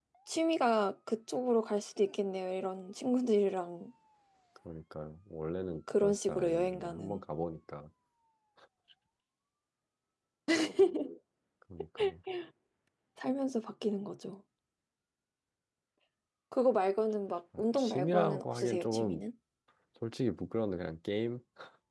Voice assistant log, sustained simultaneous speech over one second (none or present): present